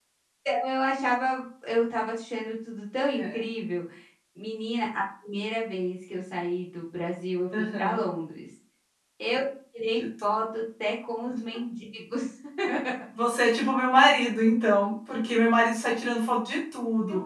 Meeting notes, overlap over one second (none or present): none